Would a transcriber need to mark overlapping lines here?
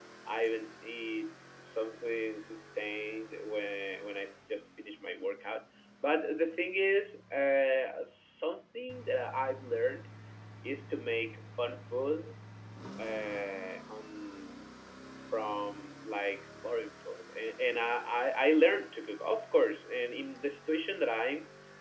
No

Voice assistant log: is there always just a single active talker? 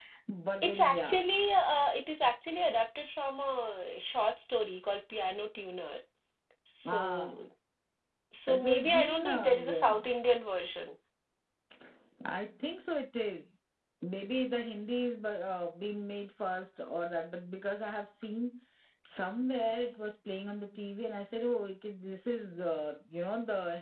No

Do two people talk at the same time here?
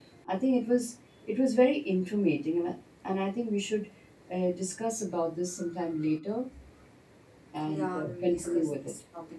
Yes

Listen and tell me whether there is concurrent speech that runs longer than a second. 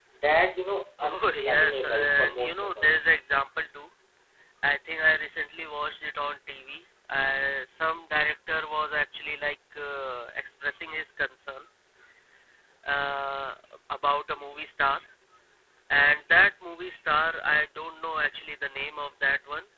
Yes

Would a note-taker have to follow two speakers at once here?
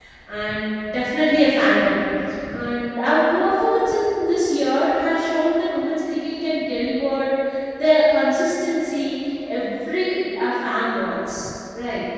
No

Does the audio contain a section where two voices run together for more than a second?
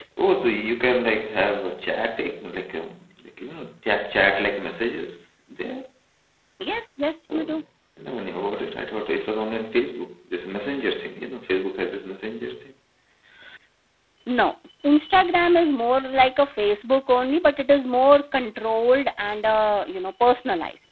No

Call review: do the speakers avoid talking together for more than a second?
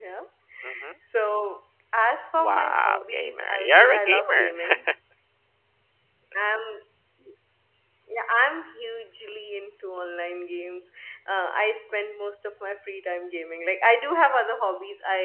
No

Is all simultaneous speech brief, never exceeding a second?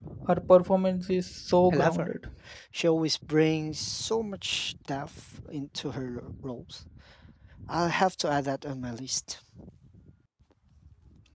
Yes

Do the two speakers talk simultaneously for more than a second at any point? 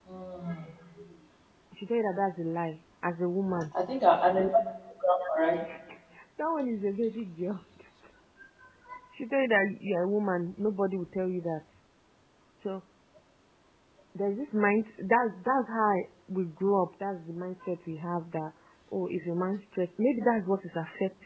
No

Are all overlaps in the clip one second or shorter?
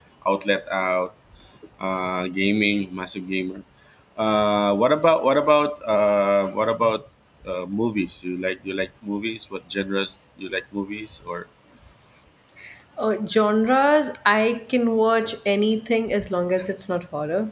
Yes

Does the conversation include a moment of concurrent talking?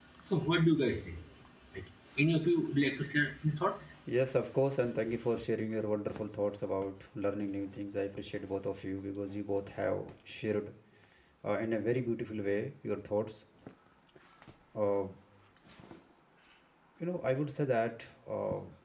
No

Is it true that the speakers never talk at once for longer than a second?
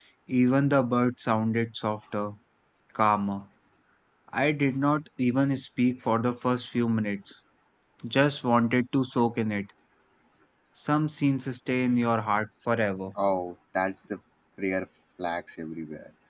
Yes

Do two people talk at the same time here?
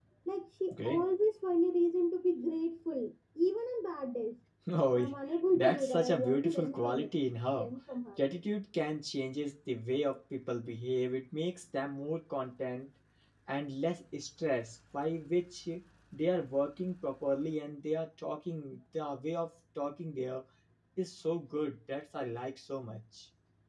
Yes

